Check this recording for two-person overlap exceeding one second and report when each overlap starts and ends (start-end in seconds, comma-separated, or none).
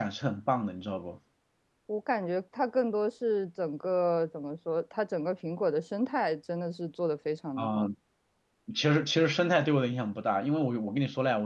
none